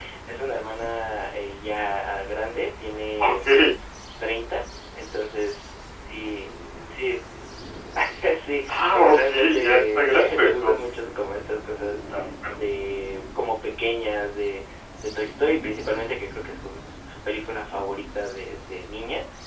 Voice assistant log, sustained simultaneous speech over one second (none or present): present